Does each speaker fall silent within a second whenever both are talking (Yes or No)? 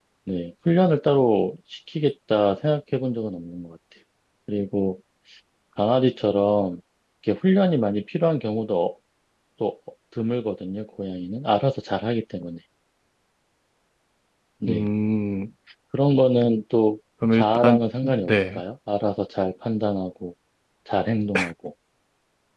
No